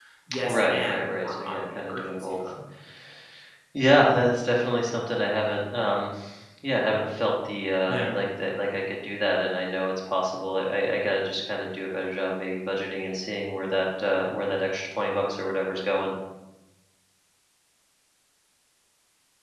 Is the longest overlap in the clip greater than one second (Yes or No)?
Yes